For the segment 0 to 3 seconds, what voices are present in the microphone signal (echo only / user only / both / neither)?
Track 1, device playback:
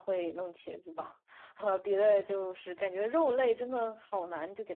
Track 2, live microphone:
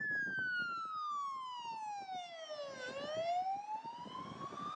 neither